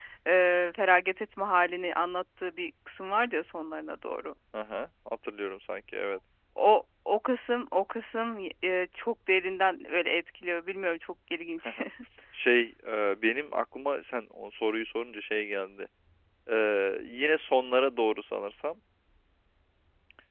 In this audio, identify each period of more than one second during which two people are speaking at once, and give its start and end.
none

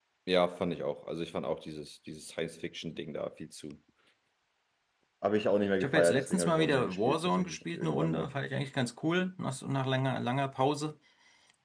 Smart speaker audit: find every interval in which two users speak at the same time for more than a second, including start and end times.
5.8-8.3

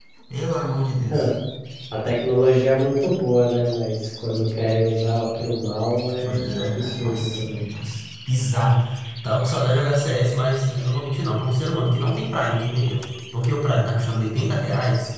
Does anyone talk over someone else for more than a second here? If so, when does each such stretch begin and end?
6.2-7.6

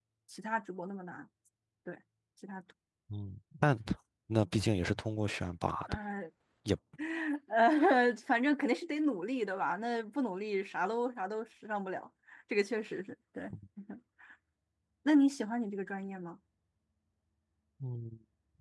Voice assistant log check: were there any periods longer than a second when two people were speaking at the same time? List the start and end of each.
none

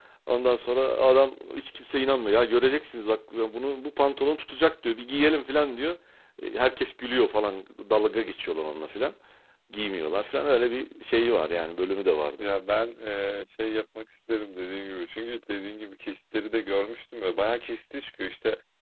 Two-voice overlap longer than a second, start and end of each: none

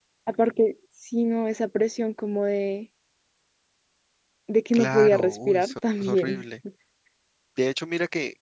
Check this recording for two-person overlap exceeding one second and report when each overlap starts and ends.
4.7-6.4

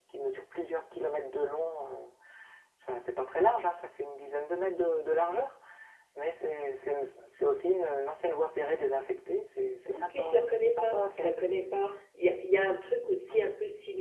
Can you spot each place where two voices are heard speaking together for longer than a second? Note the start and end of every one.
9.9-11.3

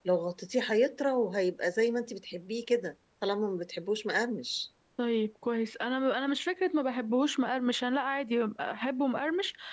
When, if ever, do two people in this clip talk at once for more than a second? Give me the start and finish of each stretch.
none

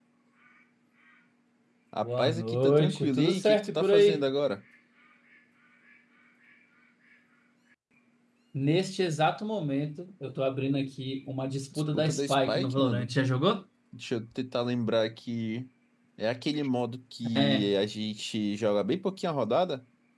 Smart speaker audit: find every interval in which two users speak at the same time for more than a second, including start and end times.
2.0-4.2, 11.7-13.1

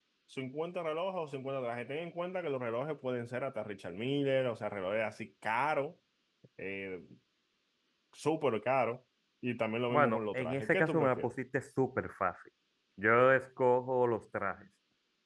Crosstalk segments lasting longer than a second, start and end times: 9.9-11.3

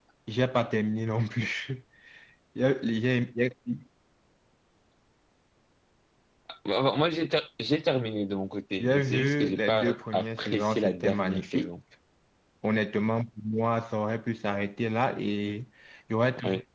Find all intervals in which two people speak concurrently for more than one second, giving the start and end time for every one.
8.8-11.7

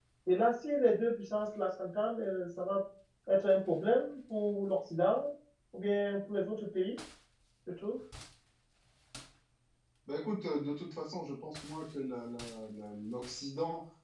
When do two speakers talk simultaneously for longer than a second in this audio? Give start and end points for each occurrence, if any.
none

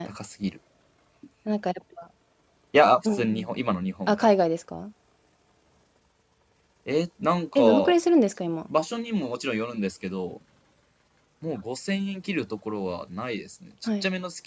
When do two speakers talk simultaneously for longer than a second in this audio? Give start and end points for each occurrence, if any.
none

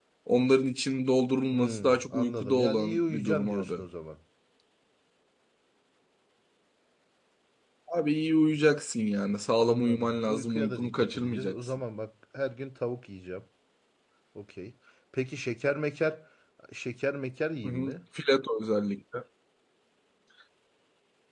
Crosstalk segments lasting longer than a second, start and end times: 1.5-3.7, 9.6-11.7

